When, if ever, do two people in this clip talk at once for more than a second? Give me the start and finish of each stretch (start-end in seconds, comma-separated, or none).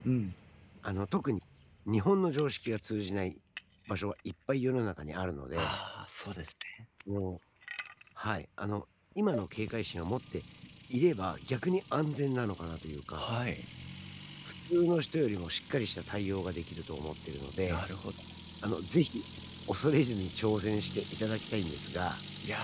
none